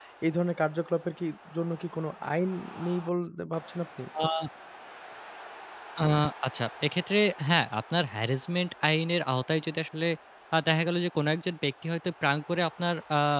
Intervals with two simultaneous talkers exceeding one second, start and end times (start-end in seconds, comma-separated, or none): none